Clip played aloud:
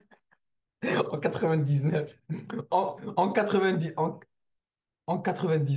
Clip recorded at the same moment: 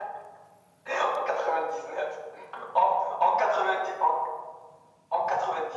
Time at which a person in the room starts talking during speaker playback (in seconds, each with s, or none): none